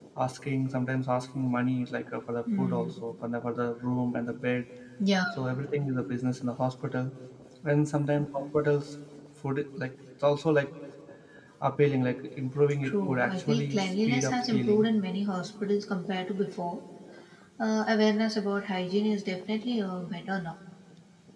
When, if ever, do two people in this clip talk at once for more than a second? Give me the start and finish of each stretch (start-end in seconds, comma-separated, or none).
12.8-14.8